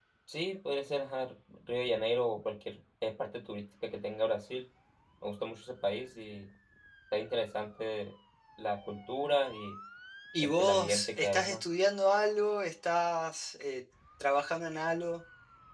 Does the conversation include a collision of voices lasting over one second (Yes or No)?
Yes